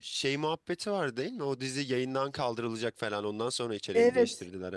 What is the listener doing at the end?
taking over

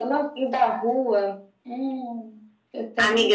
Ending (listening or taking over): taking over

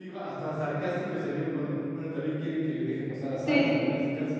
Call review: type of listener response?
taking over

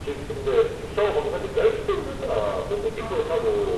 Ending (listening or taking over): listening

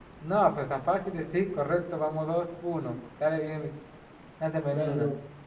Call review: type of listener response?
taking over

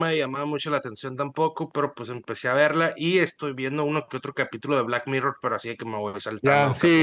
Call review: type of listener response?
taking over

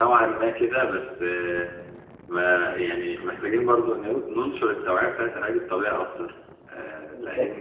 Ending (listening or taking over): taking over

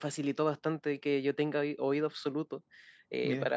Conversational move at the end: listening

